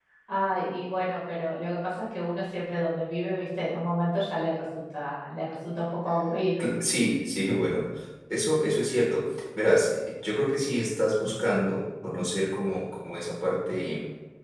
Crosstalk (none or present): none